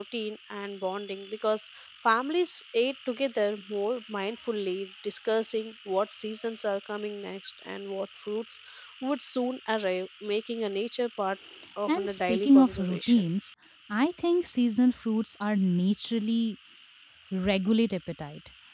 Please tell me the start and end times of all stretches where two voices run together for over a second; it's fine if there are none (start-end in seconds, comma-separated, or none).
11.9-13.2